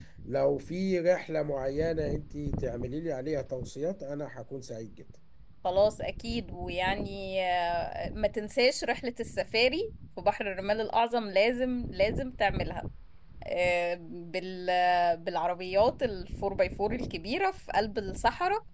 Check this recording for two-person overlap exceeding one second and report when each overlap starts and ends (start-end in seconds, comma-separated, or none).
none